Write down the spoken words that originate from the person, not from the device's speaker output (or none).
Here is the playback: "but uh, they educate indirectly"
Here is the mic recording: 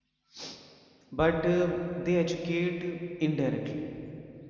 none